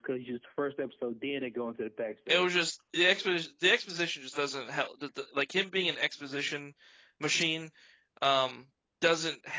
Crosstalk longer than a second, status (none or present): none